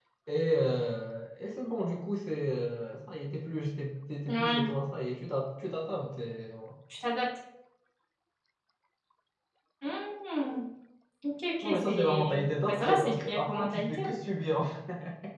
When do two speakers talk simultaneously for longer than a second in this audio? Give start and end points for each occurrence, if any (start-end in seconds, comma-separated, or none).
11.6-14.1